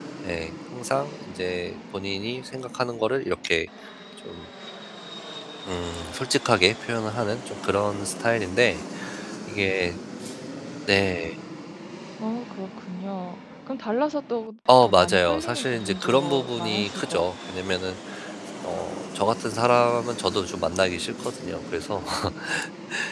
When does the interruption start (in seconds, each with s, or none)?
14.7 s